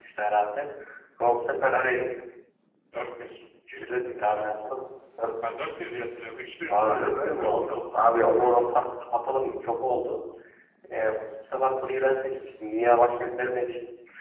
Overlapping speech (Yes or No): Yes